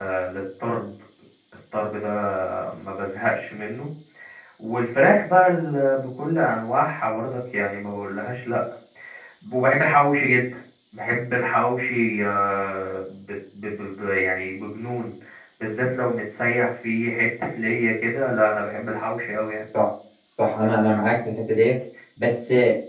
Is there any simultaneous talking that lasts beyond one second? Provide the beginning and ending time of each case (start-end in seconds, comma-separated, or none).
none